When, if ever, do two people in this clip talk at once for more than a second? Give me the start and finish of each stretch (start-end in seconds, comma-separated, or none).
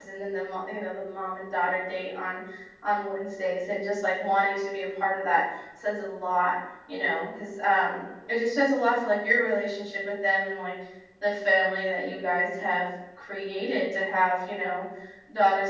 none